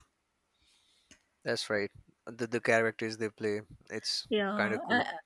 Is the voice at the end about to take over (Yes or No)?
Yes